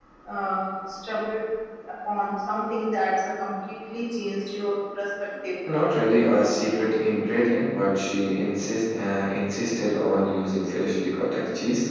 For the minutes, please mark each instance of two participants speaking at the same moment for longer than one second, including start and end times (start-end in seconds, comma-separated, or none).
none